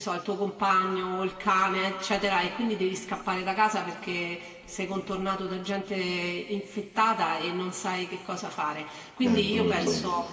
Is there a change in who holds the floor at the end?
No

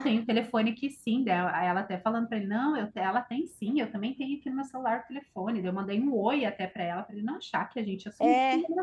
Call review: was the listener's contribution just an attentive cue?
No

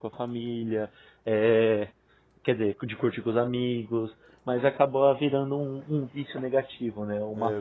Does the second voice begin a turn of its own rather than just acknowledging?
Yes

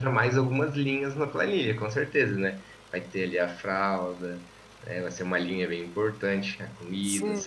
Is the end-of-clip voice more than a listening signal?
Yes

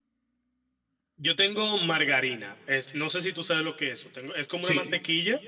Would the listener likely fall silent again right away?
Yes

